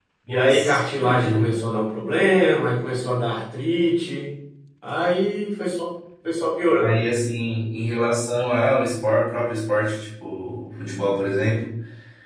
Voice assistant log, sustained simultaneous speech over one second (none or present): present